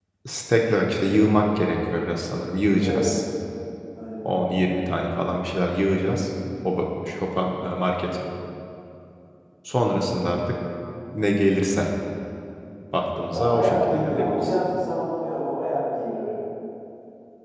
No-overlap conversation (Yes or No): No